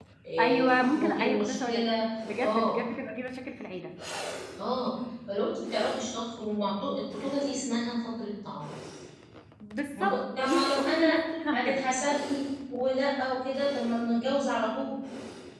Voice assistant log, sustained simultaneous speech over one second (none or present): present